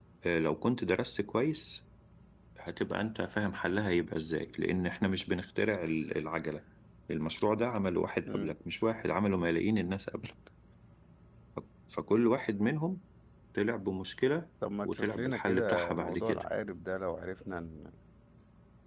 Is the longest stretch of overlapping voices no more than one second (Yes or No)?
No